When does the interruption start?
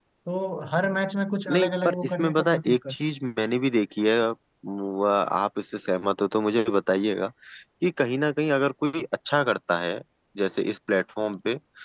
1.5 s

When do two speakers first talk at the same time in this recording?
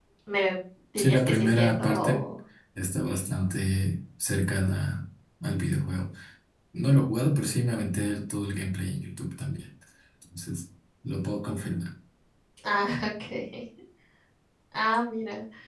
1.0 s

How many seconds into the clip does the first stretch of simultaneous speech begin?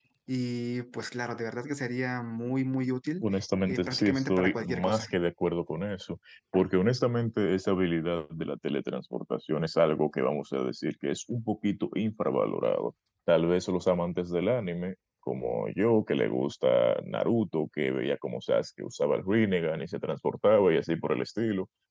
3.7 s

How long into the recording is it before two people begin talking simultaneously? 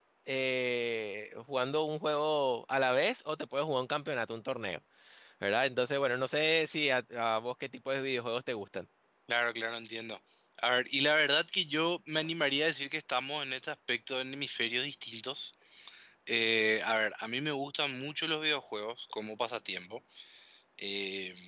none

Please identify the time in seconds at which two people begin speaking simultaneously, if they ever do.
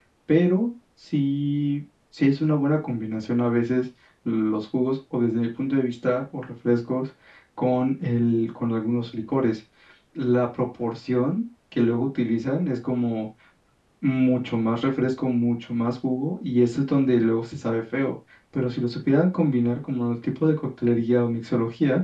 none

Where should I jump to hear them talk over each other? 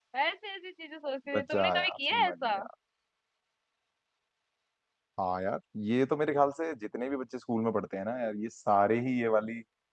1.3 s

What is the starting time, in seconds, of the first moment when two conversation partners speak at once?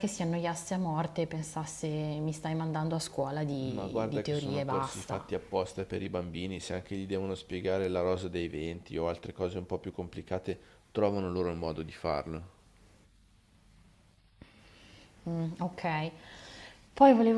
3.6 s

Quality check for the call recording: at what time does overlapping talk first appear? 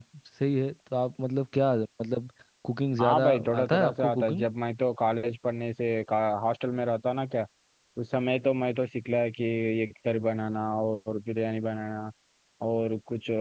3.0 s

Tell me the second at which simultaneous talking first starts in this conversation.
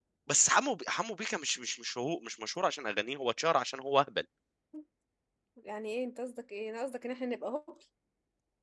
none

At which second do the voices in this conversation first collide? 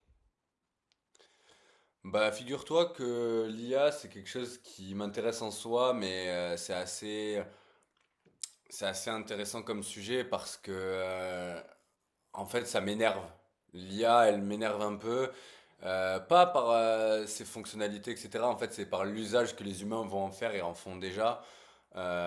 none

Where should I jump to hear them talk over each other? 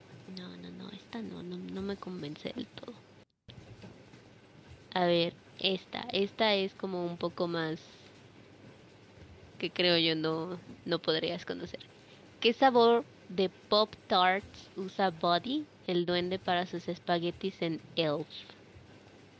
none

